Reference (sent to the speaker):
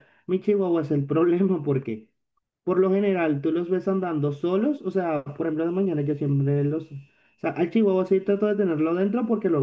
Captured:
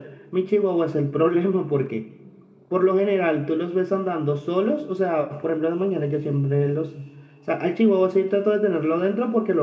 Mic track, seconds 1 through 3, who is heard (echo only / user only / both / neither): echo only